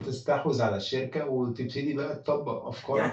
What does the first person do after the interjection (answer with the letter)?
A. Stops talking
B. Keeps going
A